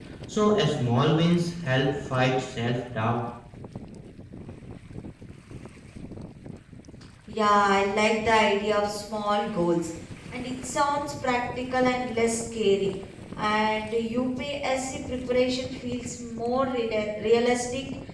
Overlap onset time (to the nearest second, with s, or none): none